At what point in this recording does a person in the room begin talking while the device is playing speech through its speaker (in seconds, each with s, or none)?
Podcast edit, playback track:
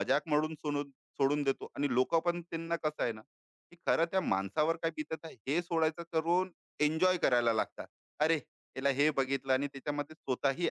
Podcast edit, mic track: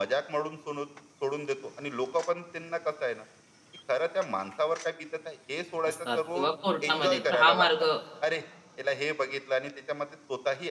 5.9 s